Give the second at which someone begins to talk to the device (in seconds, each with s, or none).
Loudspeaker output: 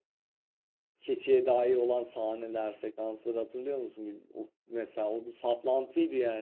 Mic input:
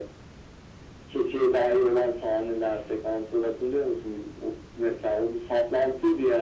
none